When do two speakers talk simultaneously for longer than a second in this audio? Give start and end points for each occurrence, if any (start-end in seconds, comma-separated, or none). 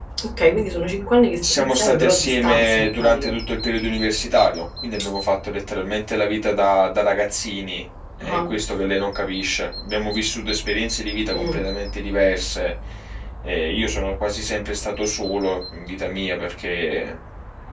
1.4-3.4